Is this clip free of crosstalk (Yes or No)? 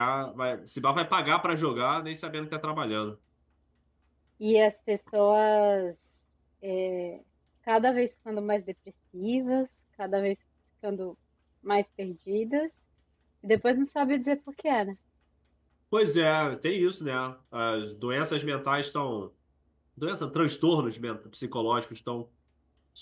Yes